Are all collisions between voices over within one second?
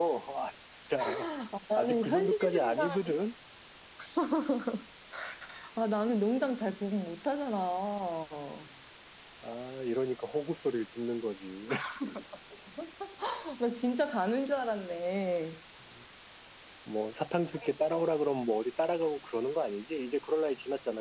No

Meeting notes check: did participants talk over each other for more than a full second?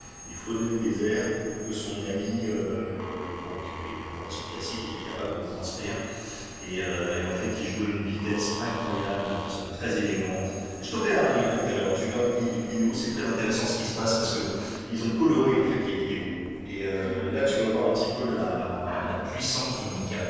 No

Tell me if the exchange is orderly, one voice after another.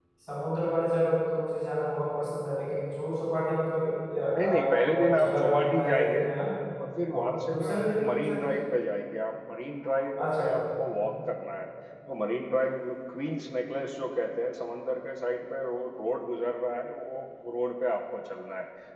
No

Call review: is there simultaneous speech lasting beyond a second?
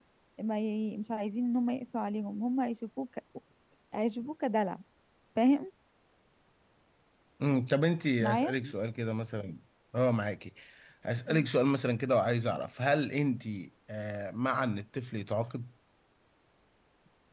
No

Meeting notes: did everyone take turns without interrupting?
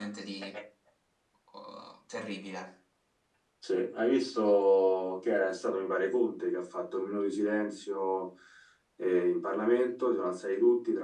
Yes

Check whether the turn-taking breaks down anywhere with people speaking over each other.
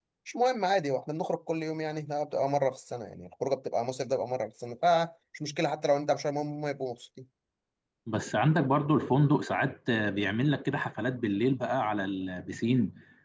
No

